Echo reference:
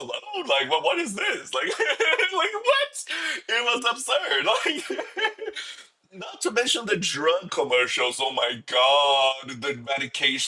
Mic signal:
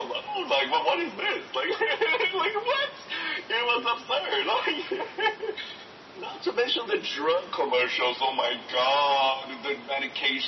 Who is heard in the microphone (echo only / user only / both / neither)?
echo only